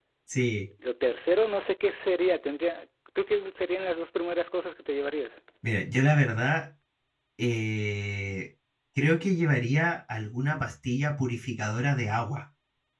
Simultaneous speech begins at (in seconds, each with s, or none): none